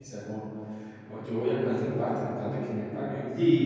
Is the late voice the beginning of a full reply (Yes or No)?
Yes